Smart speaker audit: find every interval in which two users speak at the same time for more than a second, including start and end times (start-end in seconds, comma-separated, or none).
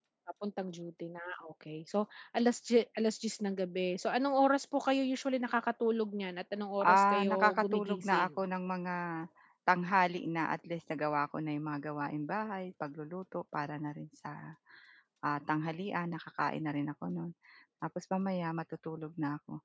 6.9-8.3